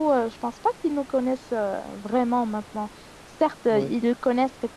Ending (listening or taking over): listening